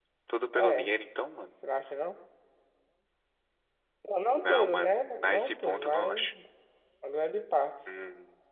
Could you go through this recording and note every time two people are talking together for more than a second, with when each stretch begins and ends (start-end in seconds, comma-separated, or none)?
4.4-6.3